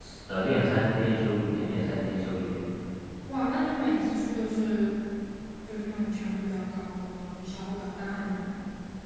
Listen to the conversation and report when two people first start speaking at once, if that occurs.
none

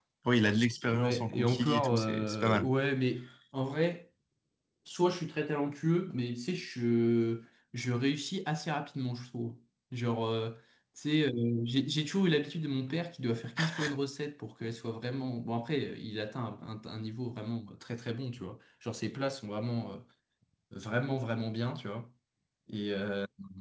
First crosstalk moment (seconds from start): 1 s

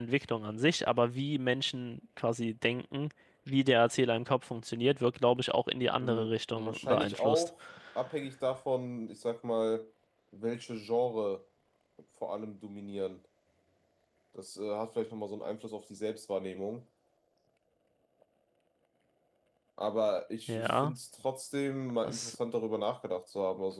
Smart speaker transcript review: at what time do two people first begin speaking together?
6 s

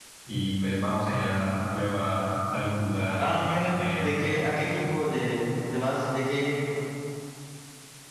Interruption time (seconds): 3 s

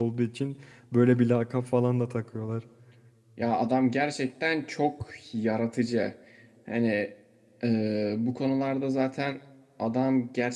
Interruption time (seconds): none

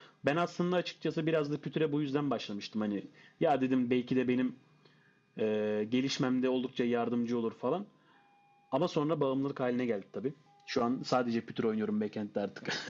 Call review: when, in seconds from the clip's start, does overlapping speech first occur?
none

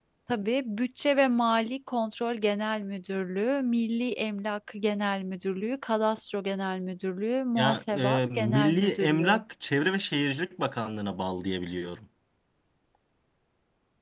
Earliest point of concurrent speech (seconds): 8 s

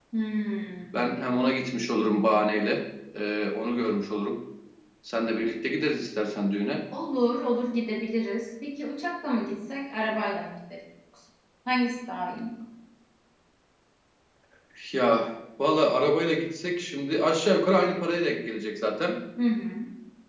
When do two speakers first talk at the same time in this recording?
none

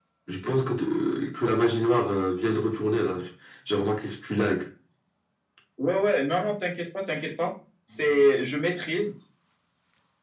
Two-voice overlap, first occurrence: none

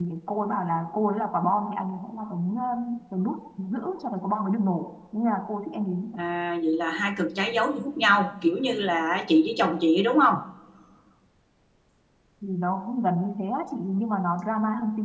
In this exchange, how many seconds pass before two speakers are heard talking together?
none

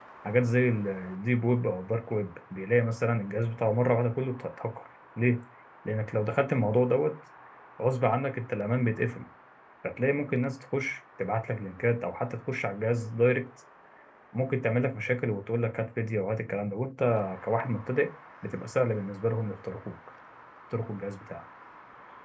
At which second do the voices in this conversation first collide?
none

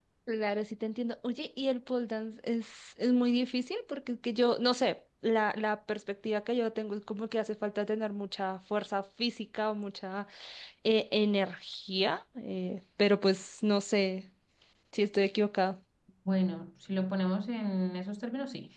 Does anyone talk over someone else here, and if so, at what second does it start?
none

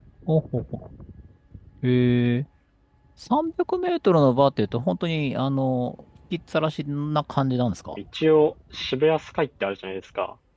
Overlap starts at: none

